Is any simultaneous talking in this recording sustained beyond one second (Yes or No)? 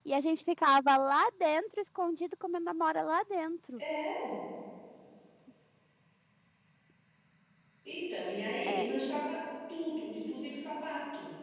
No